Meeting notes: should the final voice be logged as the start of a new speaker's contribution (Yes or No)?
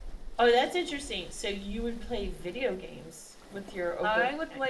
Yes